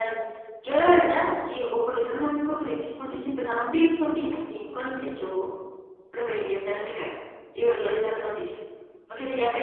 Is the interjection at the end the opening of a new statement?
No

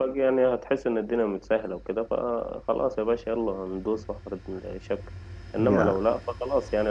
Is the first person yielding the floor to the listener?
No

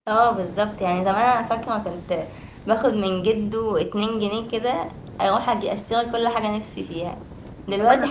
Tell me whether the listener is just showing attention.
Yes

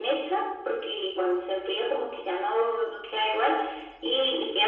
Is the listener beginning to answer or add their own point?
No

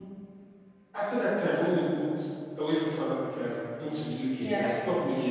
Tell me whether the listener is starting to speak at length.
No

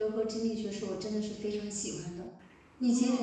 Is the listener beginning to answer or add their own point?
No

